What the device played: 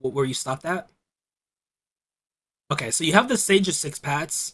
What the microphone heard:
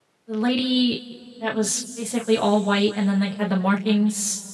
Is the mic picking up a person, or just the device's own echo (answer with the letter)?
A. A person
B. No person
A